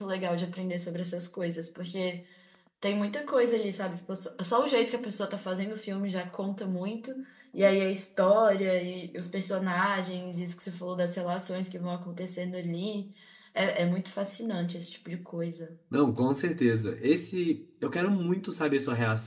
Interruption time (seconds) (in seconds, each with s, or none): none